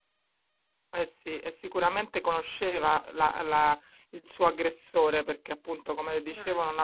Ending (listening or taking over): listening